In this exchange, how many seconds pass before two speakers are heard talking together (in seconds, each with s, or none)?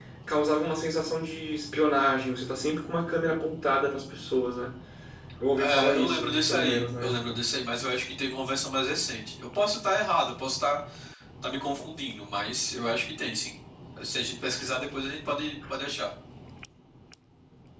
5.6 s